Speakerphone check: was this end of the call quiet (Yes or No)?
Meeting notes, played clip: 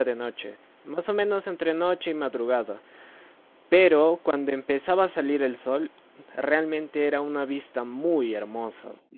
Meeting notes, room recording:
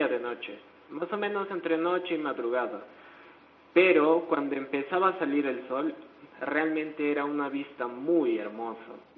Yes